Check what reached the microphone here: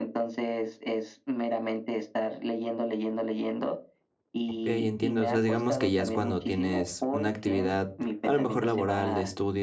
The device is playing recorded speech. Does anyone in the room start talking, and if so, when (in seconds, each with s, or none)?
4.5 s